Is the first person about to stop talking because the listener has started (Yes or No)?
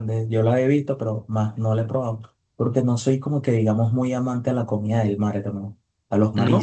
No